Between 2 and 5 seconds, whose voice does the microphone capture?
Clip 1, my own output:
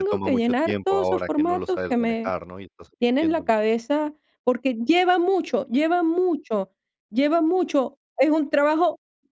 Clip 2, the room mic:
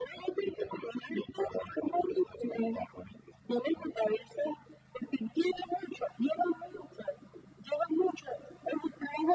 echo only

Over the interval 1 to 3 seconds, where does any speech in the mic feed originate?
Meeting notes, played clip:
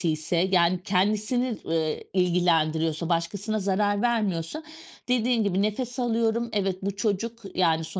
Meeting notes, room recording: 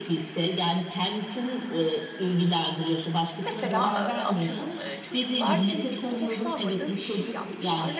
echo only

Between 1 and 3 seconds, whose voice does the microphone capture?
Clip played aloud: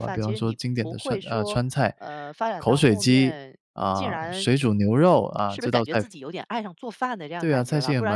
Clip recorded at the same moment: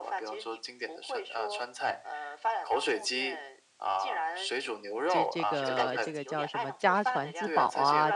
echo only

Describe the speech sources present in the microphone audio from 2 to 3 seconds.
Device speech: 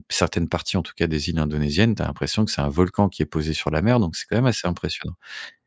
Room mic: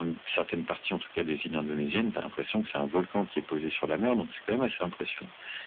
echo only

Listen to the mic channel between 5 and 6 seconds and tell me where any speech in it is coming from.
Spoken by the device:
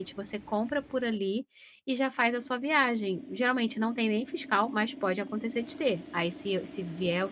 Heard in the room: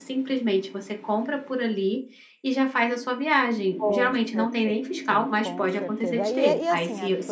both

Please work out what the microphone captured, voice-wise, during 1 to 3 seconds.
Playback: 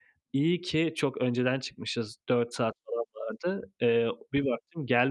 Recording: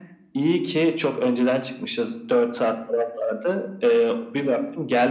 echo only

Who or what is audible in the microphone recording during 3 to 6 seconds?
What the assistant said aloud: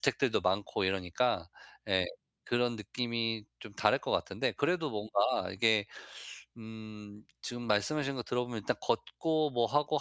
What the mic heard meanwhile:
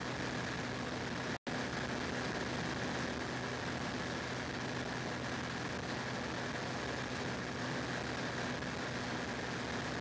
neither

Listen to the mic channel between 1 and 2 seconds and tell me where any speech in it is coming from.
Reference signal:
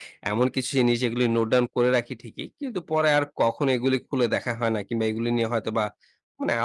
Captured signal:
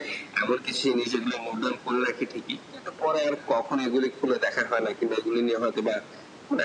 echo only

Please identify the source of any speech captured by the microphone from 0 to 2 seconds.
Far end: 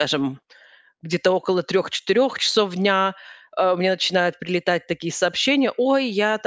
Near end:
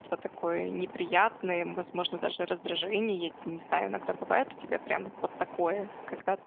user only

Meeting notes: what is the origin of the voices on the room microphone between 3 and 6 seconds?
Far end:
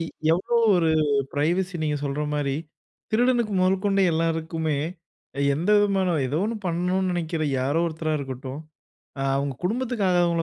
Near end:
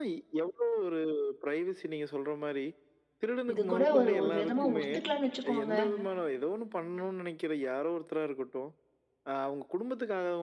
both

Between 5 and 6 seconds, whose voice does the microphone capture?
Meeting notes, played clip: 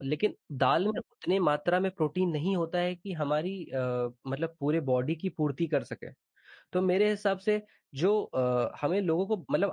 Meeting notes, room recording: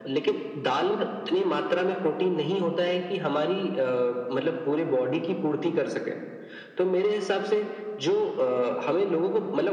echo only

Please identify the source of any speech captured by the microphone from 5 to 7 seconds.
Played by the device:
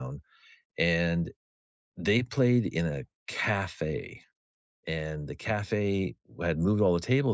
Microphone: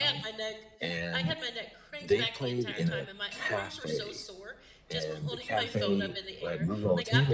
both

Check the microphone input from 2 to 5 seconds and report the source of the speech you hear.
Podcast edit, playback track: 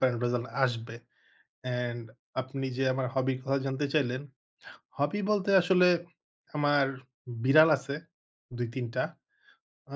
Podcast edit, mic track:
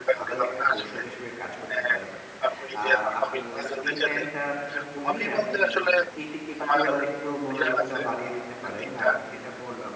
both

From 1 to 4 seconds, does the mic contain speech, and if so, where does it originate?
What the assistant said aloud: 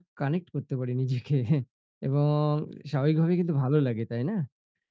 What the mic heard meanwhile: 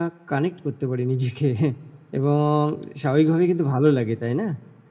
echo only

